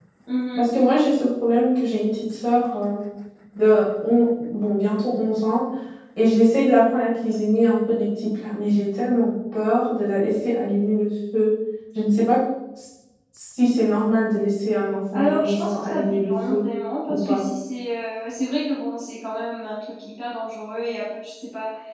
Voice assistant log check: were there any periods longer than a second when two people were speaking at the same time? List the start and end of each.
15.1-16.6

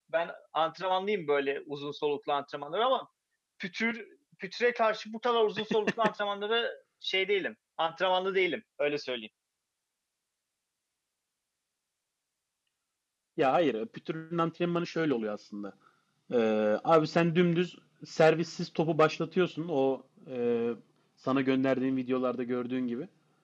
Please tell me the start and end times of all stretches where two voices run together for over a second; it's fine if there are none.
none

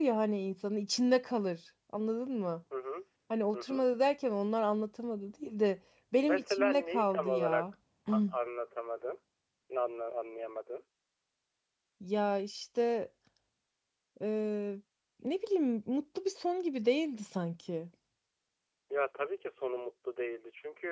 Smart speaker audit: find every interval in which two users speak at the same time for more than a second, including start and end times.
6.2-7.7

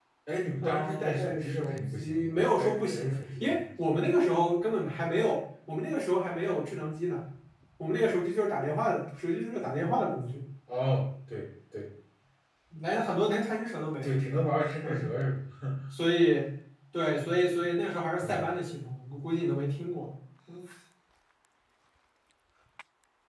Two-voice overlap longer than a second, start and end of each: 0.6-3.6

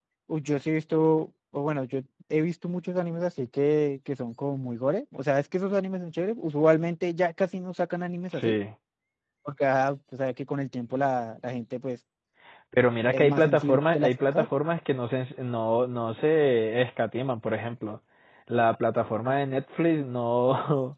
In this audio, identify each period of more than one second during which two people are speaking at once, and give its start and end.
13.1-14.4

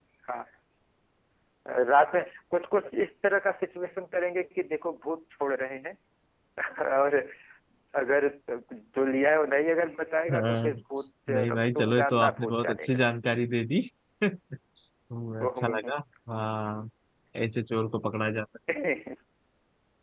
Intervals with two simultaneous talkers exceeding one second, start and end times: 11.3-13.0

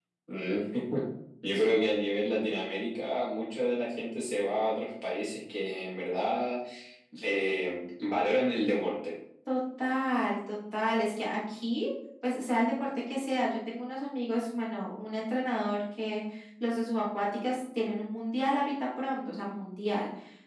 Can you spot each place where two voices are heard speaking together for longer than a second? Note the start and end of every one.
none

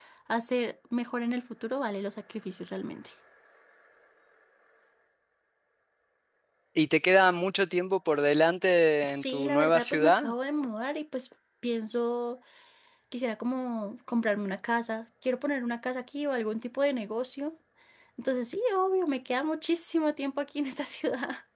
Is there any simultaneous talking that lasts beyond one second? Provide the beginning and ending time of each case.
9.1-10.3

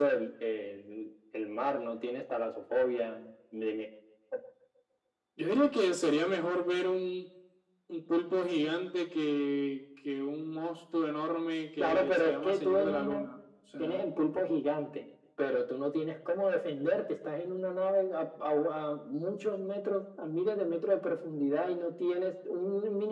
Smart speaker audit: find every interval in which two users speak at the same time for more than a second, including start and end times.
11.8-13.2

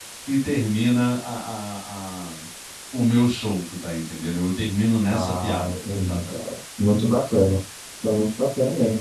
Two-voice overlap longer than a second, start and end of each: 5.1-6.5

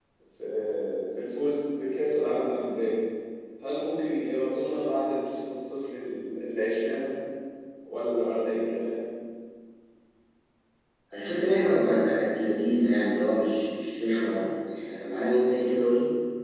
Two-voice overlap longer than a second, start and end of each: none

